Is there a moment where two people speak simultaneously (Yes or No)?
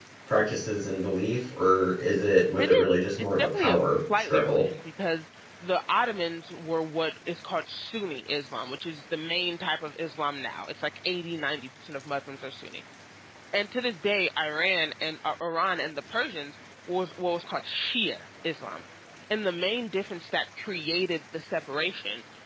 Yes